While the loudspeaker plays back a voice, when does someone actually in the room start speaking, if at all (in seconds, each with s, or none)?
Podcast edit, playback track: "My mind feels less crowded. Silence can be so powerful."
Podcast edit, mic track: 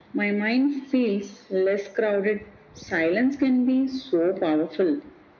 none